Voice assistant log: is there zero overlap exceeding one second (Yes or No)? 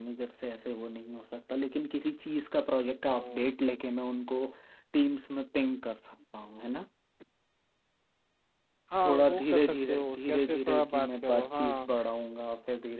No